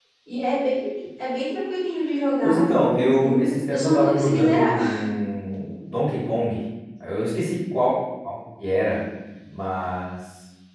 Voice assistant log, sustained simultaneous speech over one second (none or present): present